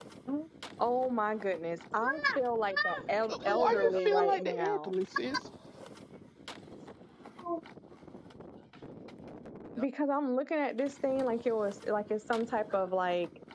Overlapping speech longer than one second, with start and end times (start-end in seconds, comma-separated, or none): 3.3-4.9